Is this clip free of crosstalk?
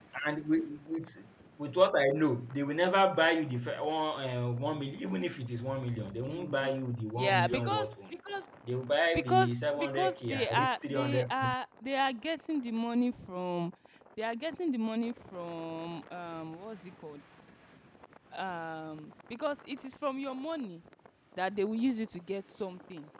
No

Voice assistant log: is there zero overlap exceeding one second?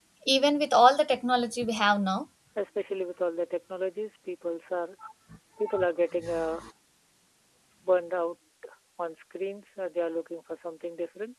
Yes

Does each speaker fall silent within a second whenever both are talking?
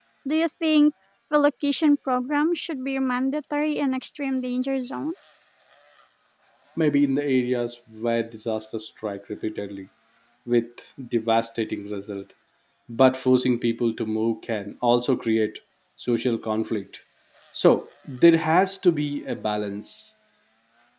Yes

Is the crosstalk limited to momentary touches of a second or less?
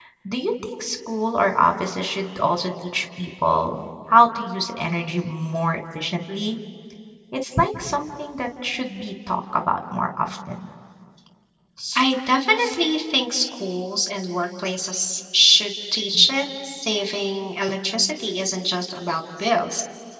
Yes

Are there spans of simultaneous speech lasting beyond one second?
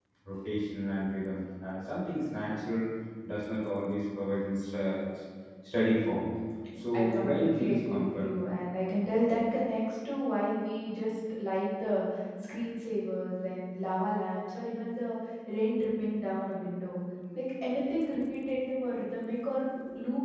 Yes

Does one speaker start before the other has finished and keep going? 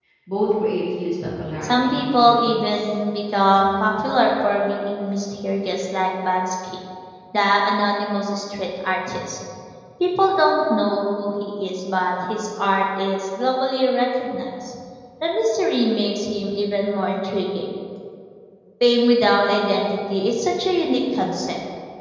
Yes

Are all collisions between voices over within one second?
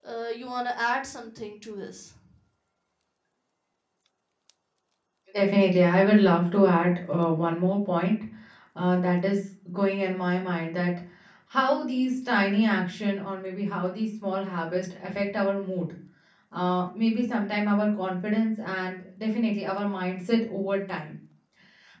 Yes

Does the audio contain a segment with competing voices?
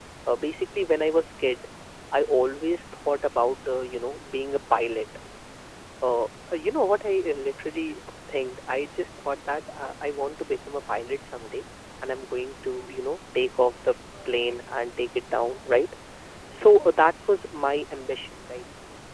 No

